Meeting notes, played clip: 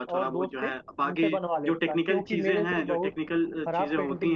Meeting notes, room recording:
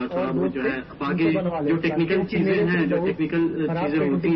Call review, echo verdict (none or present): present